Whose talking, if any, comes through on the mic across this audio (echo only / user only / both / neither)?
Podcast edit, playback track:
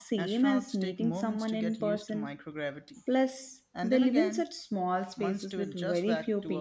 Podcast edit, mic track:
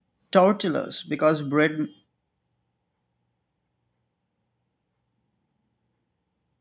user only